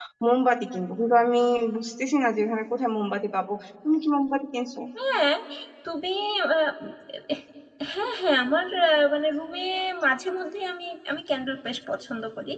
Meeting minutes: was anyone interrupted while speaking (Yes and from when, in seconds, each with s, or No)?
No